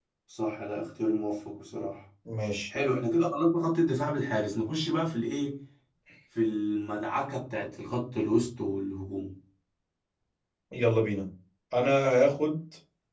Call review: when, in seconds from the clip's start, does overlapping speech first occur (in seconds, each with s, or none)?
none